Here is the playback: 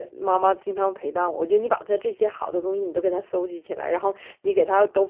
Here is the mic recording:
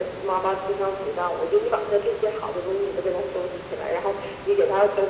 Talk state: echo only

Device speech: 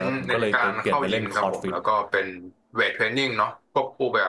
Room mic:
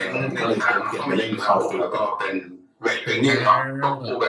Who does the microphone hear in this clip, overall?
both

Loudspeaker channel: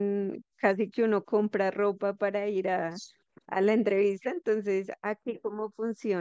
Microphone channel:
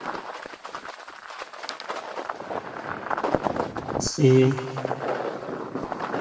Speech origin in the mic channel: user only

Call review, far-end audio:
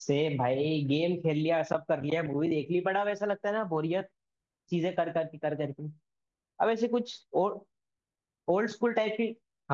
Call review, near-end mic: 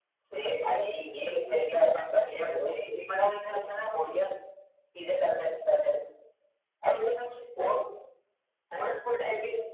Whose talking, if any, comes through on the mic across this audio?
echo only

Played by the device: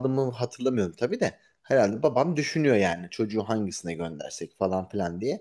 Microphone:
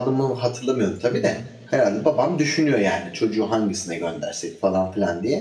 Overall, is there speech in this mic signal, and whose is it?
both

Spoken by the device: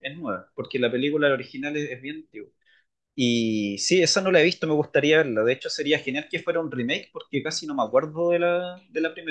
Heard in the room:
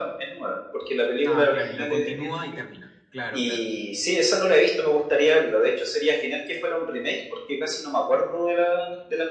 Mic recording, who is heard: both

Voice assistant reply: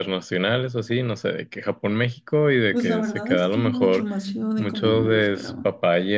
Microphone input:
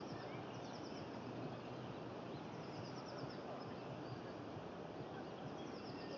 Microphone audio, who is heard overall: neither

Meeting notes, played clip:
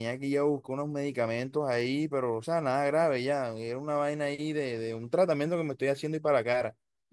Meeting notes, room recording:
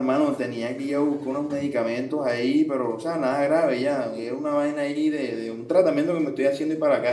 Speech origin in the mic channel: echo only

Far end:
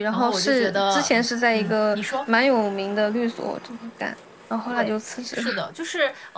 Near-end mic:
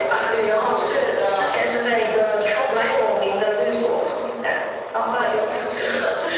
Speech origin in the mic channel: echo only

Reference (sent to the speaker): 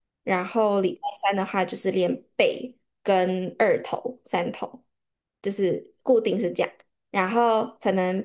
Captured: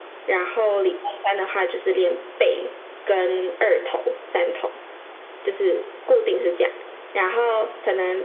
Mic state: echo only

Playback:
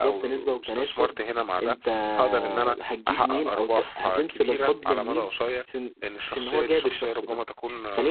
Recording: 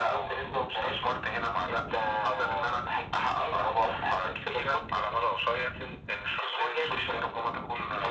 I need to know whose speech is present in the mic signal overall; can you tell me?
echo only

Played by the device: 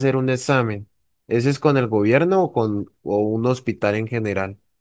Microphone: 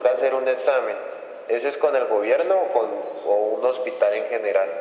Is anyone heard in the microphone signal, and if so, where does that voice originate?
echo only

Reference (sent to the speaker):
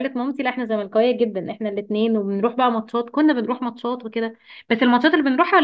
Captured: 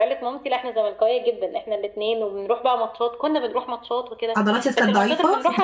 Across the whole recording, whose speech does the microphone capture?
both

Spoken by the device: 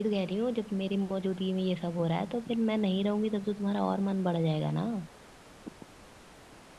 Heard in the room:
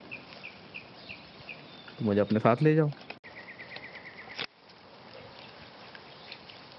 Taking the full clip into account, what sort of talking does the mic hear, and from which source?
user only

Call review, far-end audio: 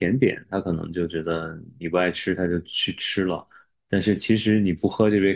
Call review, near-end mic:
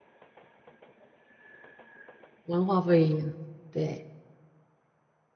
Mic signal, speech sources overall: user only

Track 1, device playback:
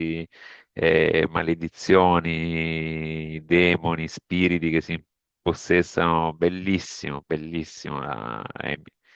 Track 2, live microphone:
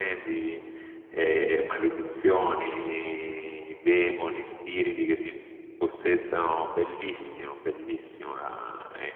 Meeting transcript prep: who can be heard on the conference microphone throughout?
echo only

